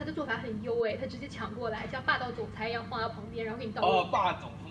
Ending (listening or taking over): taking over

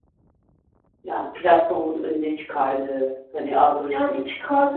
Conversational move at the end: taking over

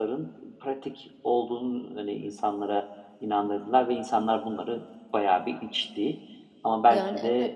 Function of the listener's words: listening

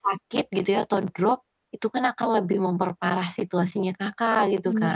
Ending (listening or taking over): taking over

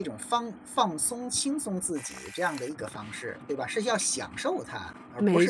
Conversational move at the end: taking over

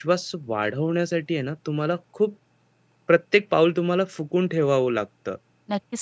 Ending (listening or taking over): taking over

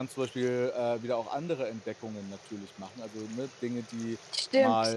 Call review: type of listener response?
taking over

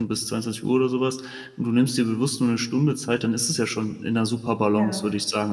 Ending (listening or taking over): listening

